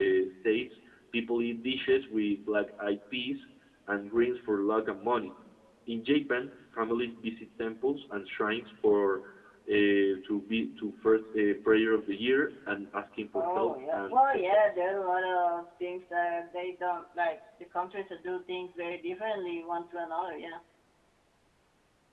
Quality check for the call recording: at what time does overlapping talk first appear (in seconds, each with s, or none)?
13.4 s